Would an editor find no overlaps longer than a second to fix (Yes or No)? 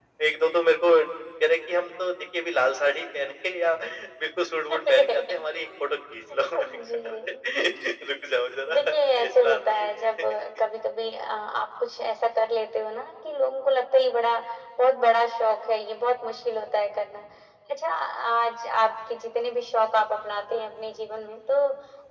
No